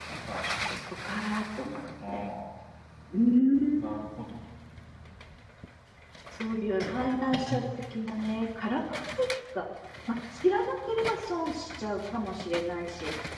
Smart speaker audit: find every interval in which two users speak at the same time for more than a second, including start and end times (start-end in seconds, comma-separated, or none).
none